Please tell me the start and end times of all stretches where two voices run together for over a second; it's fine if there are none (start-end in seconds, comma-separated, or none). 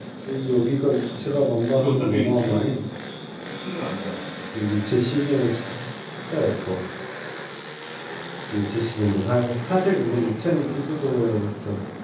1.2-2.8